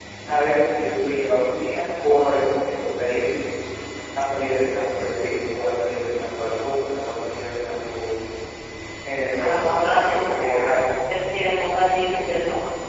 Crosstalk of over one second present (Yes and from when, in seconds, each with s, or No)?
Yes, from 9.4 s